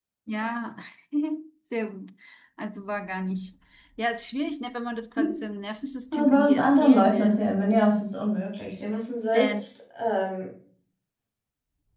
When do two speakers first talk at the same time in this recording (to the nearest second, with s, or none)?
6 s